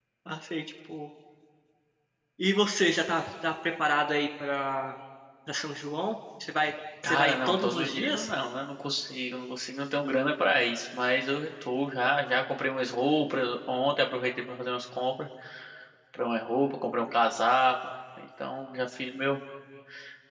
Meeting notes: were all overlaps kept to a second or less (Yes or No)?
No